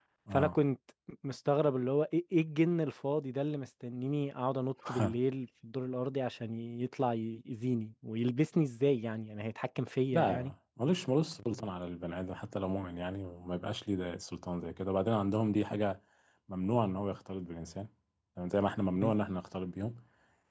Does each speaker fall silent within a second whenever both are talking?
Yes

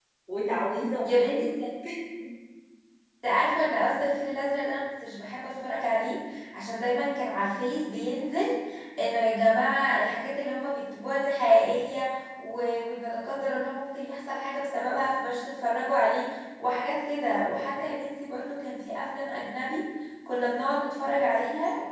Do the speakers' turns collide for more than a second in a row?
No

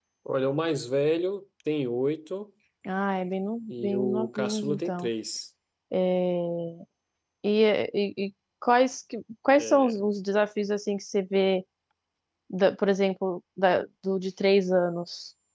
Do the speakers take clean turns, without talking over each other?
No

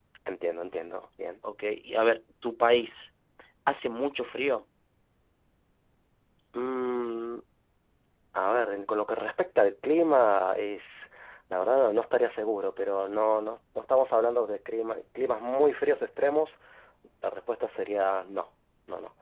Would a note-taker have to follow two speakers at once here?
No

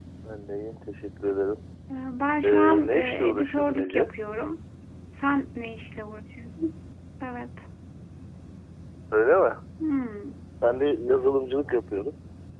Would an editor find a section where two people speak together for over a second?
Yes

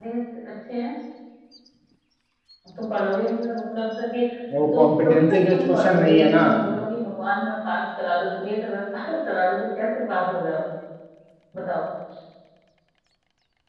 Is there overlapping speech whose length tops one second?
Yes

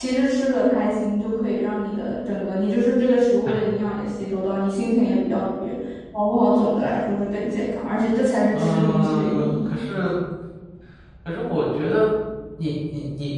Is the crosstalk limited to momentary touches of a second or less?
No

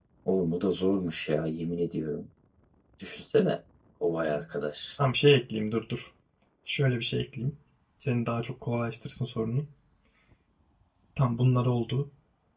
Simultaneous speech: No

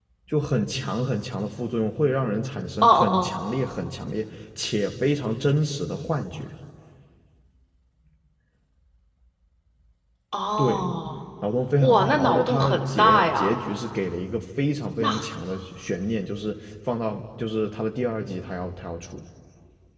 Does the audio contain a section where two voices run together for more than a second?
Yes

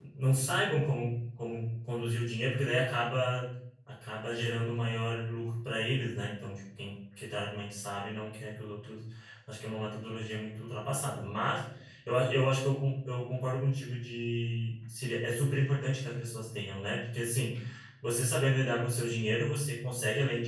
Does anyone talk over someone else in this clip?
No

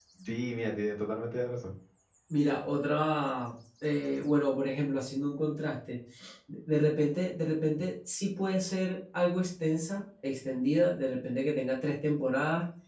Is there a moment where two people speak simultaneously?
No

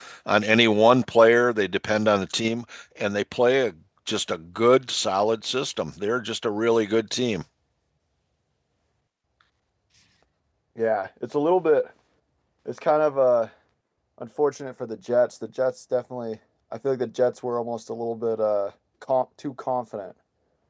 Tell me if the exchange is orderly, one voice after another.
Yes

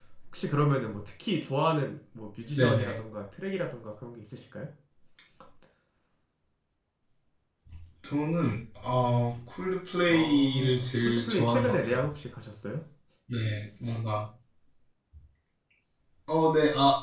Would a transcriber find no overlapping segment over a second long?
No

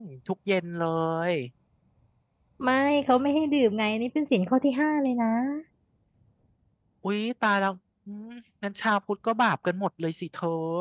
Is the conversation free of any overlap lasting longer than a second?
Yes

